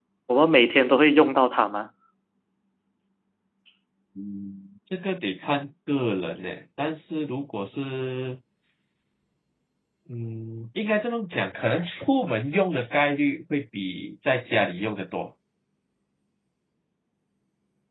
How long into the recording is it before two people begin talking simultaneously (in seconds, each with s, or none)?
none